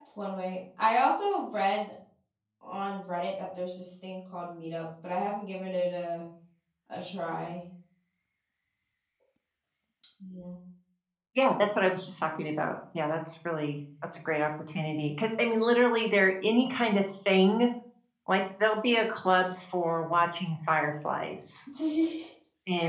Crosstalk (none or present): none